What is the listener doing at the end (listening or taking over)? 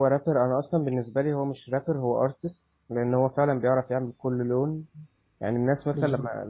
listening